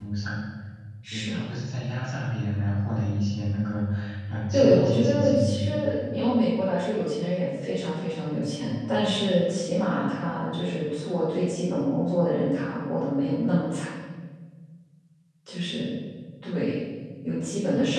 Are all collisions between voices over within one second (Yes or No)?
No